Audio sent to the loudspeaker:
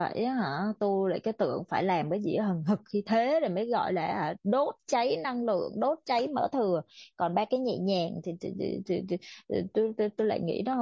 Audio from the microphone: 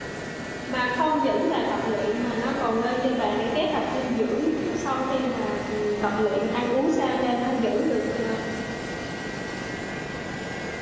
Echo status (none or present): none